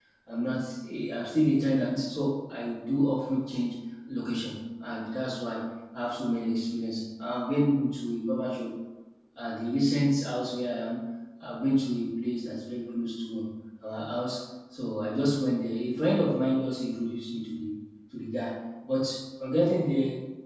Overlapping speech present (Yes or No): No